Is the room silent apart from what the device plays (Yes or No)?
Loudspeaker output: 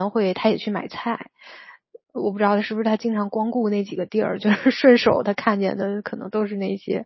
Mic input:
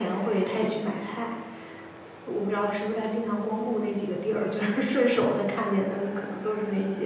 Yes